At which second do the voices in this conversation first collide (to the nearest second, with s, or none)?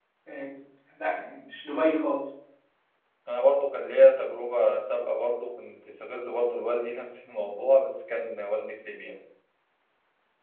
none